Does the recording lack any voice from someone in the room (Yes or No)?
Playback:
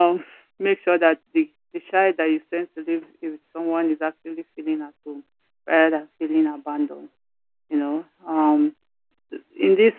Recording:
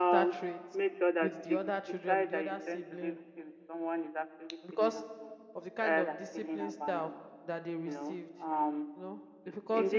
No